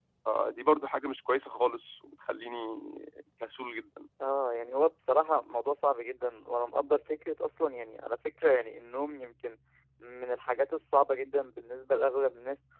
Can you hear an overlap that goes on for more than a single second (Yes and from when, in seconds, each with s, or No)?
No